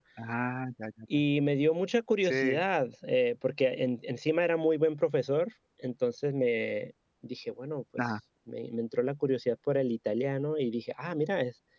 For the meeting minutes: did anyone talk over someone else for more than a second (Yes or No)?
No